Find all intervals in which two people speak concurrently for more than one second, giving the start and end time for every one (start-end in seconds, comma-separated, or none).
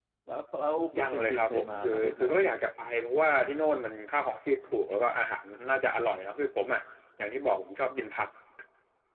1.0-2.5